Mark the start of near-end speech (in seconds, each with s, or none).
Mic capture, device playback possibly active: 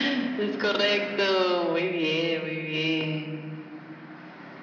none